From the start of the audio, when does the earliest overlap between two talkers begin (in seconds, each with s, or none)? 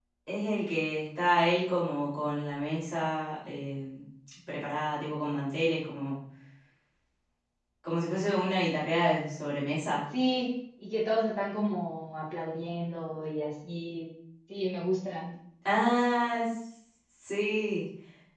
none